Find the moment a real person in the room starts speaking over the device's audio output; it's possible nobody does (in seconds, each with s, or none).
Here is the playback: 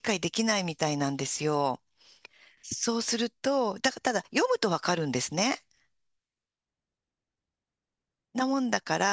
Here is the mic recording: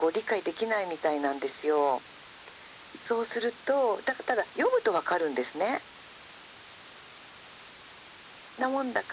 none